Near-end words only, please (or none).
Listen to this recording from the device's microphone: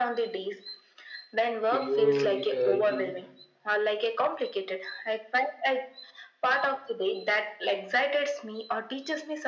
prioritizing